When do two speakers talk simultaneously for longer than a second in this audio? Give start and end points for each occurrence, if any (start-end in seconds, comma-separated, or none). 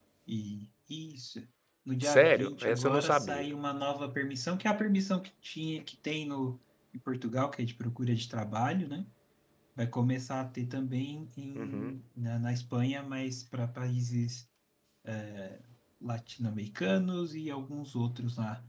2.0-3.5